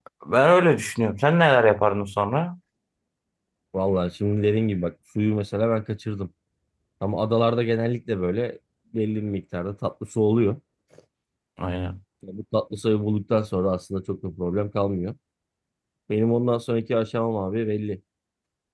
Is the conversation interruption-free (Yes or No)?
Yes